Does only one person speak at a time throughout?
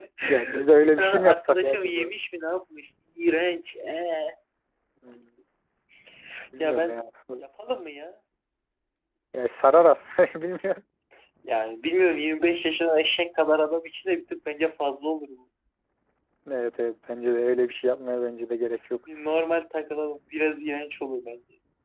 No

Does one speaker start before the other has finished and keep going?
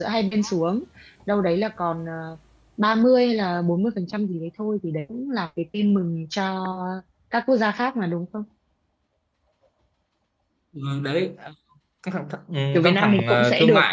Yes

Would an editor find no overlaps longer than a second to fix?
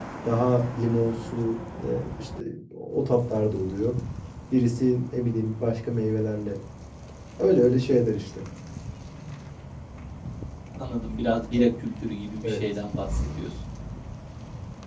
Yes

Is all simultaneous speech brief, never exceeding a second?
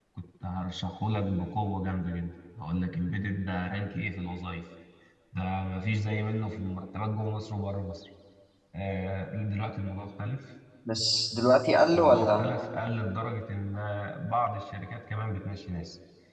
Yes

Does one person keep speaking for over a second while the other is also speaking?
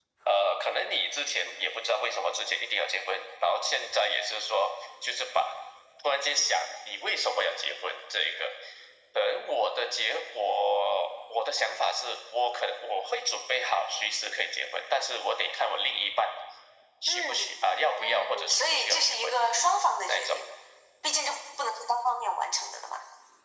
Yes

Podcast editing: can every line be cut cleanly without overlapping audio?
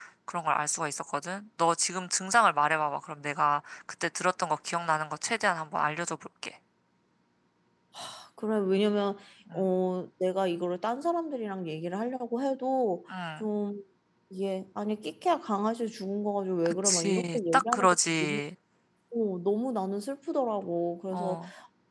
No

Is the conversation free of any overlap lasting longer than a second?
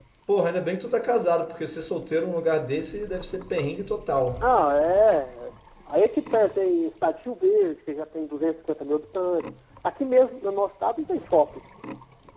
Yes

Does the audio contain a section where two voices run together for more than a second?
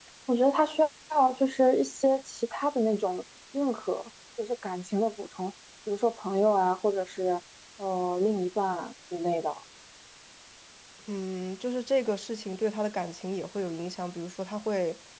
No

